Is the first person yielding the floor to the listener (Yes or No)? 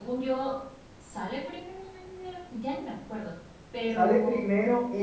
Yes